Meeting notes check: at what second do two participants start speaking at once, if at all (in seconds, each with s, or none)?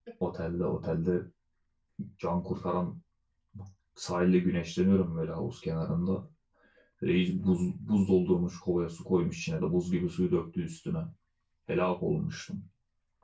none